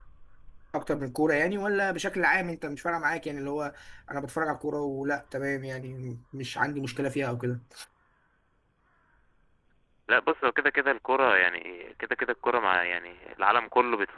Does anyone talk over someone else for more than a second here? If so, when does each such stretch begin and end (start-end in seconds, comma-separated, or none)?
none